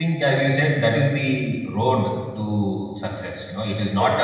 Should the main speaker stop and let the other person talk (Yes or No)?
No